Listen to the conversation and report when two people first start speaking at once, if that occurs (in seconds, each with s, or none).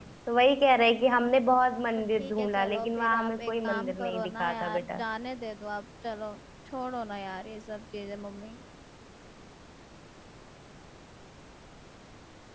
1.9 s